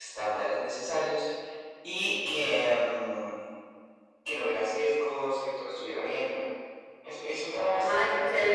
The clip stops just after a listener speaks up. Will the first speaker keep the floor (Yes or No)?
No